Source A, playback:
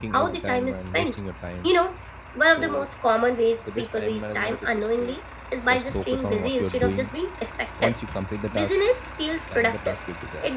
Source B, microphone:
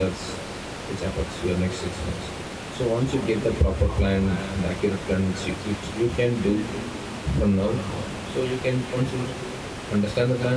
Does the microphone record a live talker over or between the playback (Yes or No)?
Yes